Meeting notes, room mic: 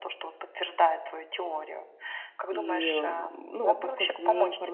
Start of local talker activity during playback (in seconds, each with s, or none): 2.5 s